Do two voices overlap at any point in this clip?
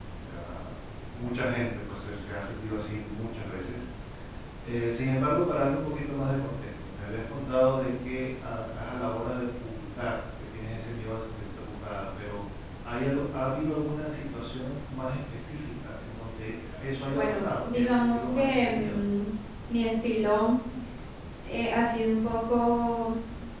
Yes, from 17.1 s

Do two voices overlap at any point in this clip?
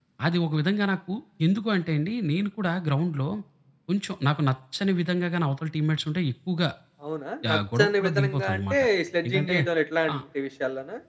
Yes, from 7.5 s

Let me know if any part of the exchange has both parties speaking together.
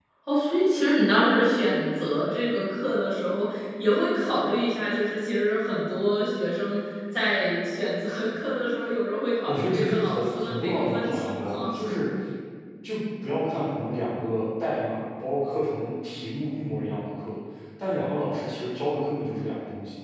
Yes, from 9.4 s

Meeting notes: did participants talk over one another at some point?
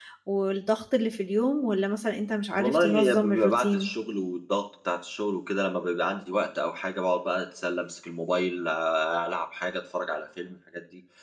Yes, from 2.6 s

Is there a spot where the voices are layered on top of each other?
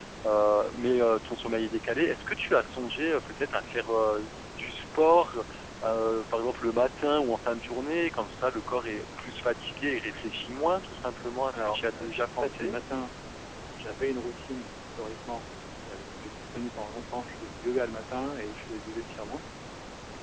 Yes, from 11.5 s

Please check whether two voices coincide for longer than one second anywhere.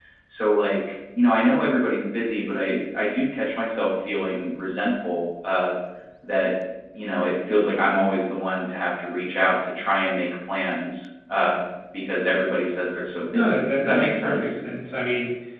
Yes, from 13.3 s

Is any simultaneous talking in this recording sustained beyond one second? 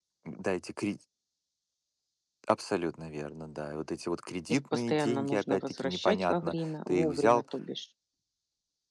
Yes, from 4.5 s

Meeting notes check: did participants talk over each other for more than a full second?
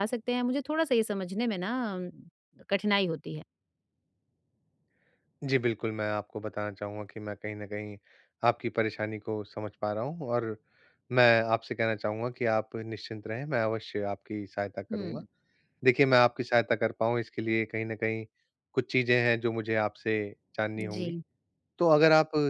No

